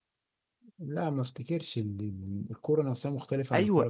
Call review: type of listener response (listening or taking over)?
taking over